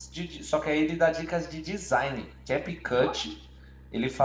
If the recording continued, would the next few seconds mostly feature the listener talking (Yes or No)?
No